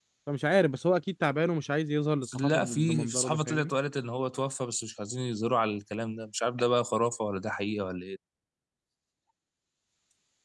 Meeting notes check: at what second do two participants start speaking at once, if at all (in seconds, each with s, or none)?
2.2 s